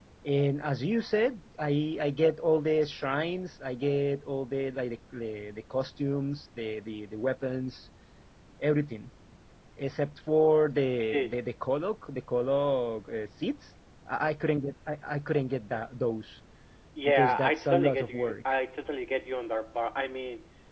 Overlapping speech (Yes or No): Yes